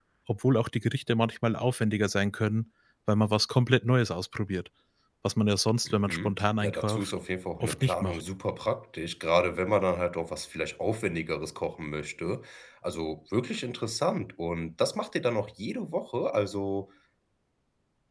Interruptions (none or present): present